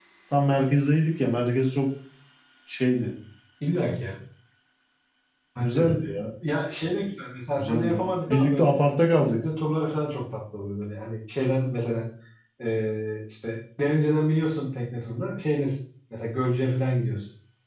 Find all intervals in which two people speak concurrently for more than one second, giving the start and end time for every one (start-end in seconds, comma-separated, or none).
7.6-8.8